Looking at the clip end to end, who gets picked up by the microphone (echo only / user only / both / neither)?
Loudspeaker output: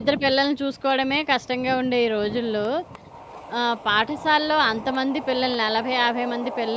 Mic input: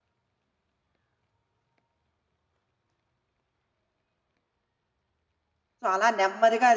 user only